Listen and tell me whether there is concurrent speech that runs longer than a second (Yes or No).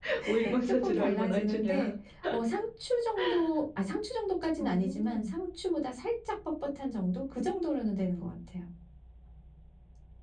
Yes